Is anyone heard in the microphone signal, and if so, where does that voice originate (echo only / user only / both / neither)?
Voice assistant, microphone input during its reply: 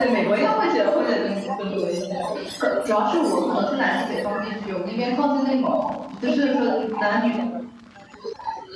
both